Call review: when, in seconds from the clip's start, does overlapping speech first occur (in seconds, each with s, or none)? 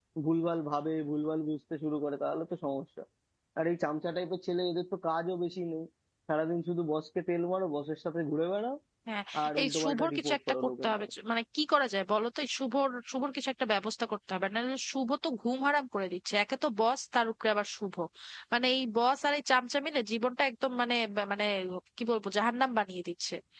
9.6 s